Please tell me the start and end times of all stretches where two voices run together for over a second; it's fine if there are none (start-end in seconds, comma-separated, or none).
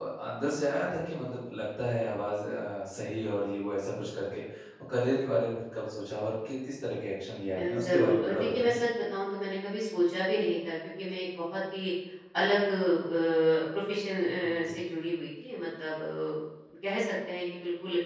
7.6-8.8